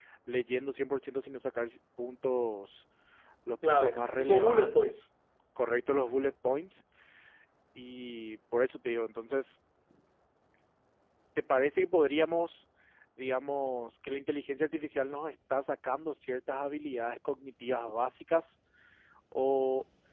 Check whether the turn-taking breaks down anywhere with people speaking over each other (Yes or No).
Yes